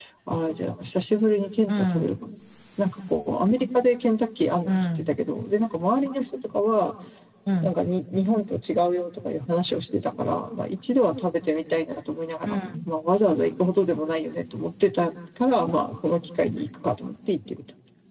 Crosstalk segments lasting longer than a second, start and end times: none

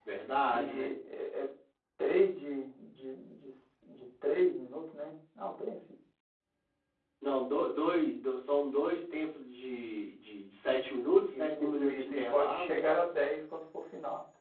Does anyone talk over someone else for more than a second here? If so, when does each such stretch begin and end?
11.3-12.9

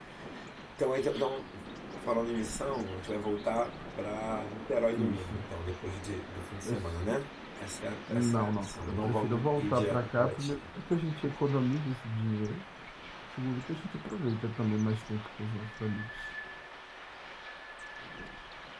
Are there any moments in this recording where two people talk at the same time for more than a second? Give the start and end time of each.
8.1-10.6

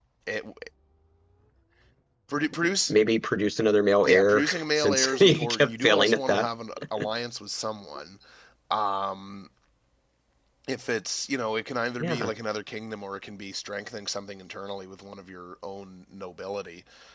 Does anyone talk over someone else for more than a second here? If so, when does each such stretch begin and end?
4.0-6.5

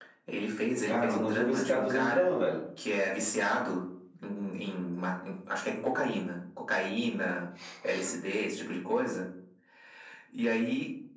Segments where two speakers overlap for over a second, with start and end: 0.8-2.4

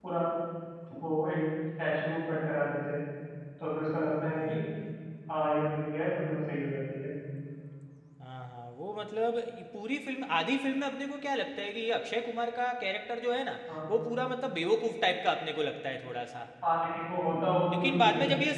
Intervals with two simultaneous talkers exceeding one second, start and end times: none

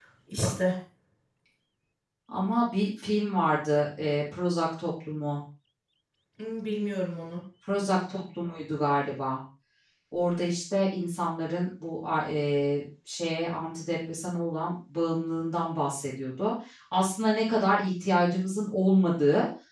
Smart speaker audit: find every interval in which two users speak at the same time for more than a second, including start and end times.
none

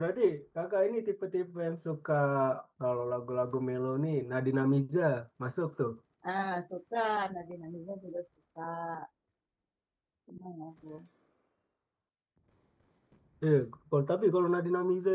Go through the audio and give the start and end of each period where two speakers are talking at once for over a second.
none

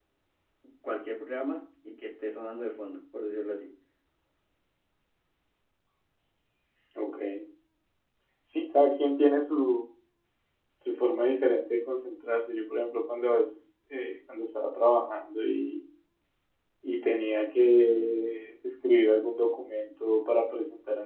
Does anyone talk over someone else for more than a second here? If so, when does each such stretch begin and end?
none

